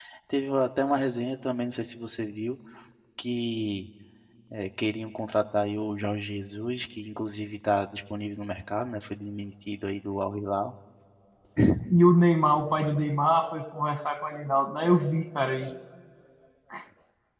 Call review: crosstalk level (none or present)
none